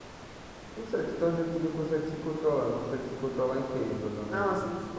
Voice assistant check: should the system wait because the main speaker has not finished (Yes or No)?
No